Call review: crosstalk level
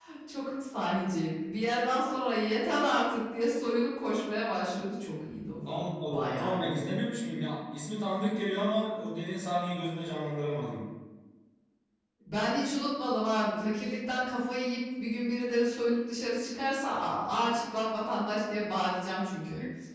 present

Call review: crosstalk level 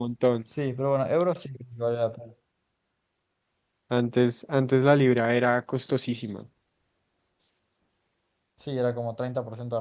none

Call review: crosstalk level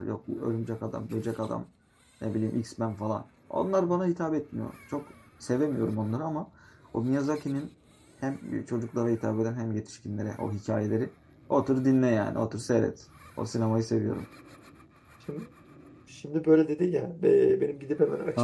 none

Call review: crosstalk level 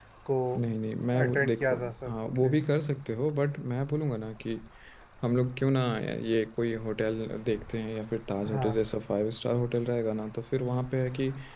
present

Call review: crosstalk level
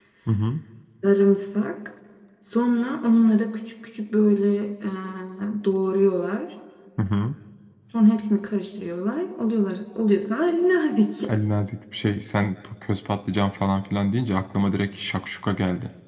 none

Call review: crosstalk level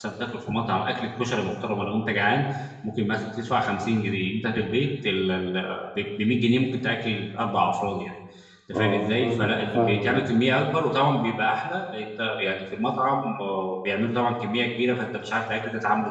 present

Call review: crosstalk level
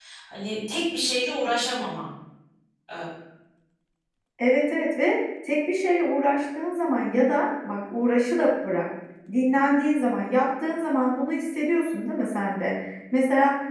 none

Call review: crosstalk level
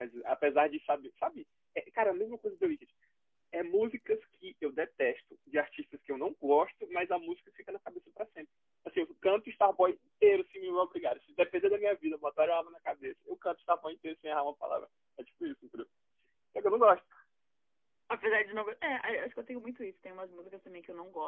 none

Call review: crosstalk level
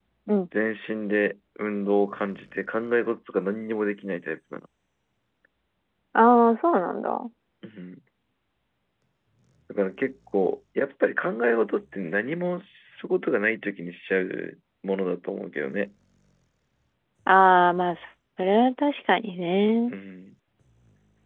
none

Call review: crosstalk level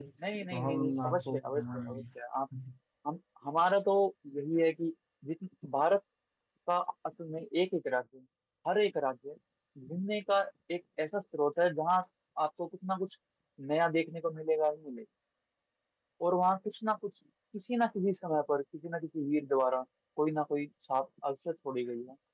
present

